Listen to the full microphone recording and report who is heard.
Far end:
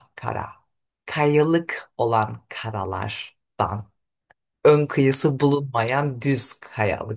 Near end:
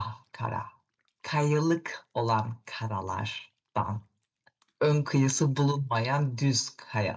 echo only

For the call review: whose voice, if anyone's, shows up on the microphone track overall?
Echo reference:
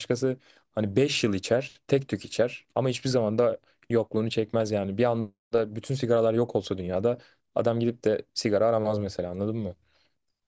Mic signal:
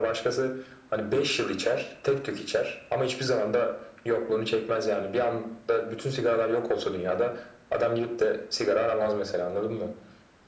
echo only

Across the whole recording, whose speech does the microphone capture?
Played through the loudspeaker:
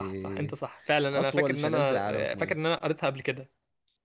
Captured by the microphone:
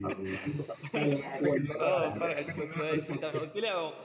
both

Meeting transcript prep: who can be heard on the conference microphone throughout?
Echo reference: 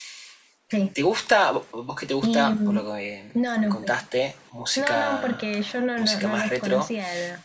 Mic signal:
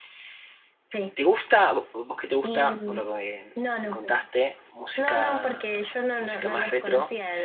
echo only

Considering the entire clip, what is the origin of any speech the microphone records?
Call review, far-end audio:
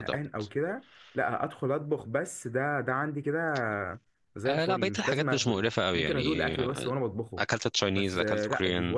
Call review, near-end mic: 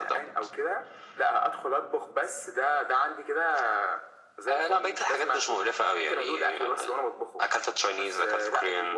echo only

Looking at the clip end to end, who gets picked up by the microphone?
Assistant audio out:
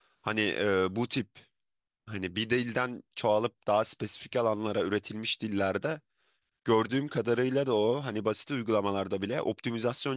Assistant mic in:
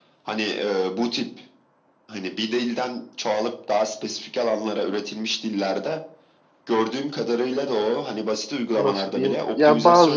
both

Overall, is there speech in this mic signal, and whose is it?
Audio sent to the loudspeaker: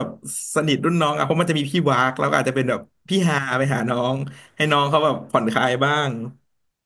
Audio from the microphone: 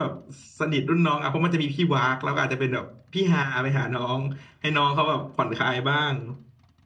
echo only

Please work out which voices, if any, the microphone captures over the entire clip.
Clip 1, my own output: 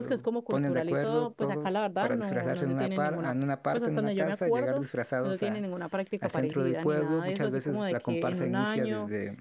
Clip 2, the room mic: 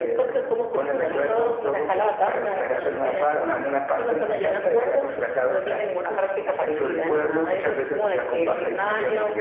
both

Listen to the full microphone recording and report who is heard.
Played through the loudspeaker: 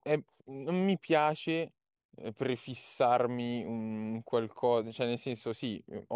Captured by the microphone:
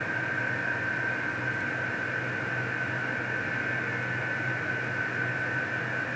neither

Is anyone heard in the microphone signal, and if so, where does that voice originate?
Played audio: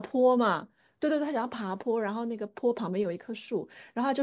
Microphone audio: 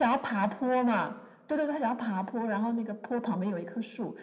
echo only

